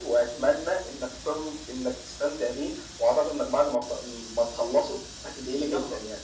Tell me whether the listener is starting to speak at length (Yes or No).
Yes